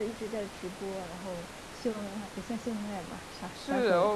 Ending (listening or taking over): taking over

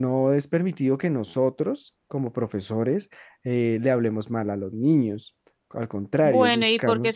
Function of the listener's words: taking over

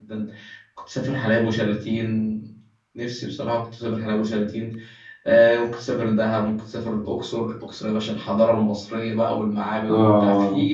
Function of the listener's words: listening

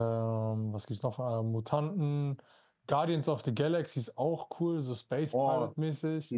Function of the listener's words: taking over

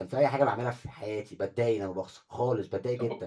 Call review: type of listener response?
taking over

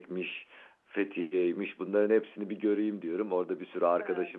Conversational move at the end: listening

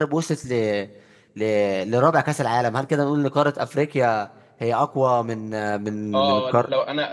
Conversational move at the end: taking over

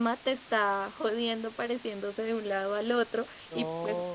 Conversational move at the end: listening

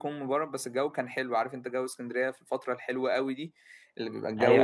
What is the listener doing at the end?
taking over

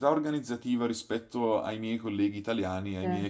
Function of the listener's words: listening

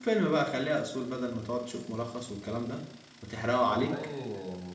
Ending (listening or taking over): taking over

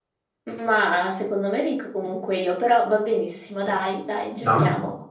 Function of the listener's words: taking over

